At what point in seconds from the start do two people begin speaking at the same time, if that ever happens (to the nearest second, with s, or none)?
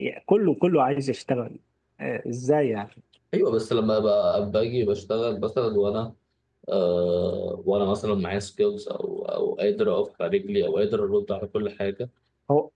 none